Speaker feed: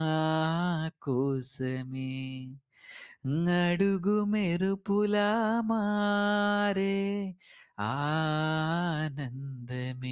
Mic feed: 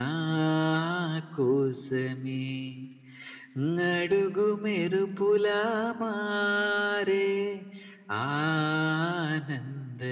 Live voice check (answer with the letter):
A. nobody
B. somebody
A